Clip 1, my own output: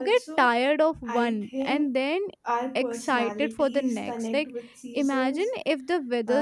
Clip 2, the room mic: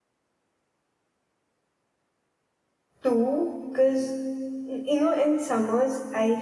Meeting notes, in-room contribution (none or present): present